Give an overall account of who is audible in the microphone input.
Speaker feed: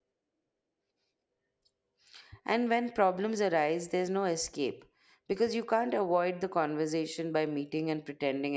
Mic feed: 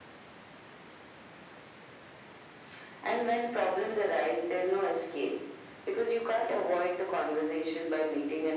echo only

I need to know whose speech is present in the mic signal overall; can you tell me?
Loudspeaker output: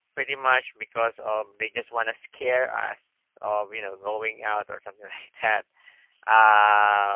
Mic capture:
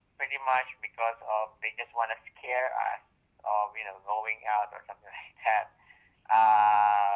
echo only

